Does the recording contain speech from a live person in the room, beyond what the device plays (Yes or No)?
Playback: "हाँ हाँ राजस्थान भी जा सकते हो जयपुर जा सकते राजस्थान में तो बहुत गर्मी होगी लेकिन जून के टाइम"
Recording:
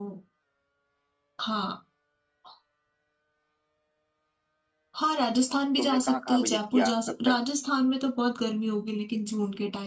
Yes